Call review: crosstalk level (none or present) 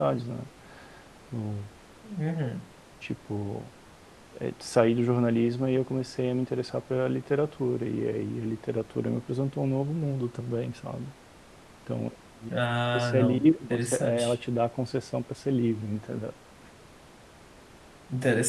present